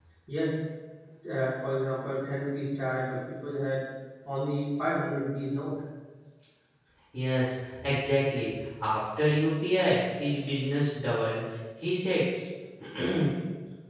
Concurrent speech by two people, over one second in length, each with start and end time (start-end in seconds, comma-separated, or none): none